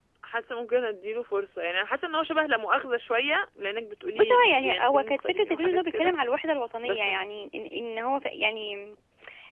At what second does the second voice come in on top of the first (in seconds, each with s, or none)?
4.2 s